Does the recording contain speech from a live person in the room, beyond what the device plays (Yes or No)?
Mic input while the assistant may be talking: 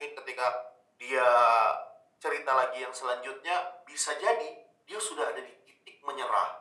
No